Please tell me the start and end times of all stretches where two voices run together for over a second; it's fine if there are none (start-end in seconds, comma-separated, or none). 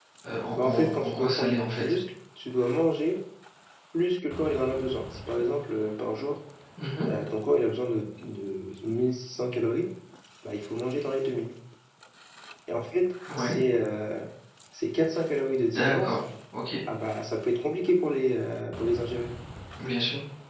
0.6-1.9